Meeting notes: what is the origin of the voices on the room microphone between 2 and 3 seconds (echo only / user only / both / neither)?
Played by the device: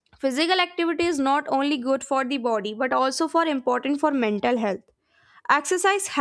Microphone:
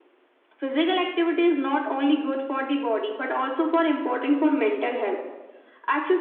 echo only